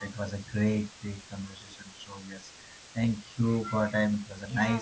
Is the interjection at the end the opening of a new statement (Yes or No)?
Yes